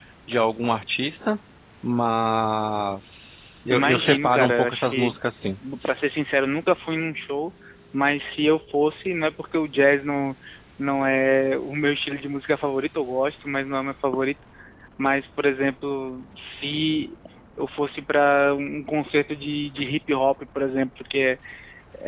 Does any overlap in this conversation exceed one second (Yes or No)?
Yes